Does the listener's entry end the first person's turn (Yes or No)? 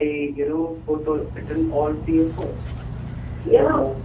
No